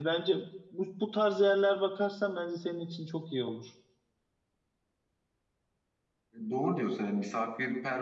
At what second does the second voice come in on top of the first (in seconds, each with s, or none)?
none